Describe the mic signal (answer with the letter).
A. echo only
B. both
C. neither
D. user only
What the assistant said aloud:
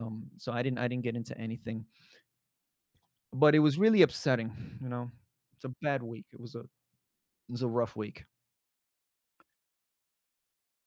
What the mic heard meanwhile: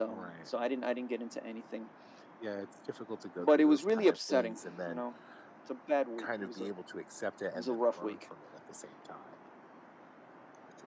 B